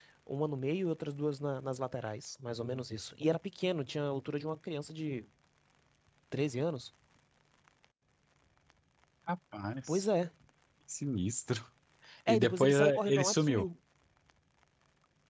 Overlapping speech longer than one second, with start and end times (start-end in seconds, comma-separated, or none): 12.3-13.7